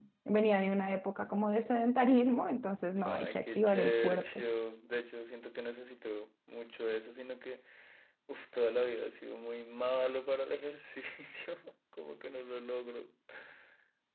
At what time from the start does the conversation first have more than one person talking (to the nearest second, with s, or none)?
3 s